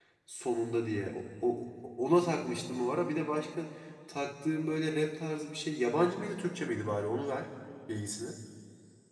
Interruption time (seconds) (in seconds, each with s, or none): none